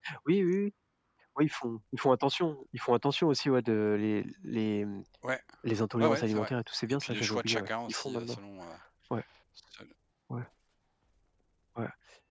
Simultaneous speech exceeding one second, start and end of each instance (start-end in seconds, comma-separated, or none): 6.9-8.4